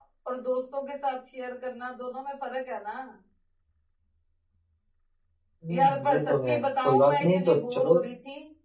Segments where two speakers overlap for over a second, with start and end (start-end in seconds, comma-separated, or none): 5.7-8.0